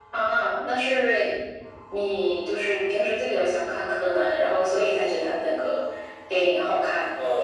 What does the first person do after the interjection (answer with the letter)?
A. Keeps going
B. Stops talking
B